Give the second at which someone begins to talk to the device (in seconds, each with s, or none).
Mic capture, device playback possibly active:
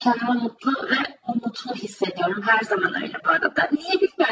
none